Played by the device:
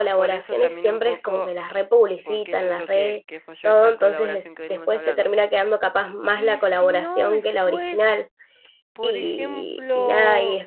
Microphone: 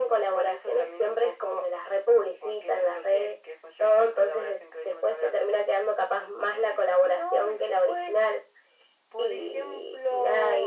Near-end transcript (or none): none